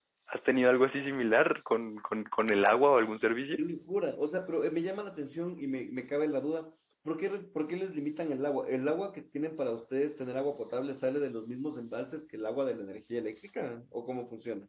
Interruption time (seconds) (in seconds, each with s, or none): none